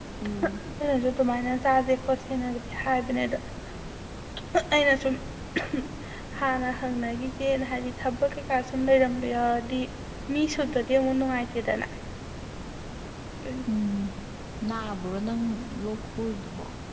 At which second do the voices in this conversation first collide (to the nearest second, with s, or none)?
none